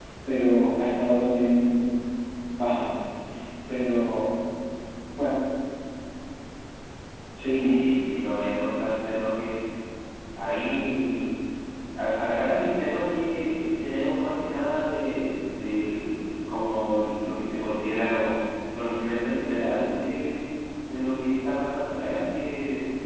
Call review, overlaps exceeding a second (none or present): none